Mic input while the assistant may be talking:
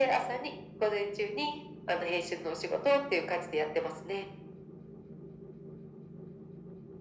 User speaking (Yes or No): No